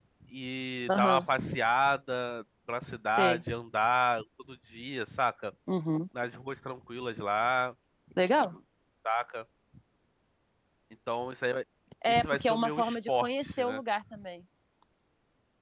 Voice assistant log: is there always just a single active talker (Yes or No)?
No